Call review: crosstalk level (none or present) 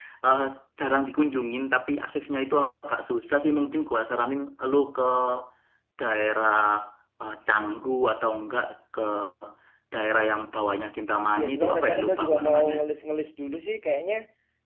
present